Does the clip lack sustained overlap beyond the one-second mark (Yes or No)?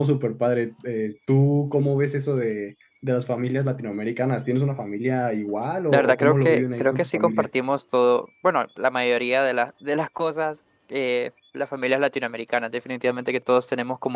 No